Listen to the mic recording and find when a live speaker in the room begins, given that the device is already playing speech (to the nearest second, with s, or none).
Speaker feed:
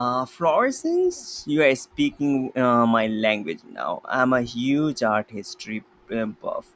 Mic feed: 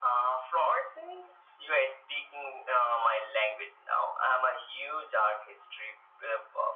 none